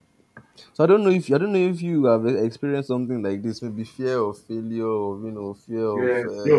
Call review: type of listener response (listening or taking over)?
taking over